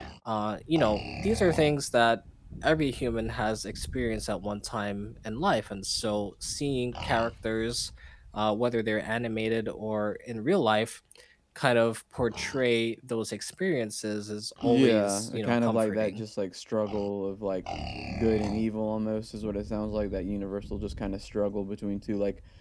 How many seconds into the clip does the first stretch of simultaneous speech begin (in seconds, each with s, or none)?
14.6 s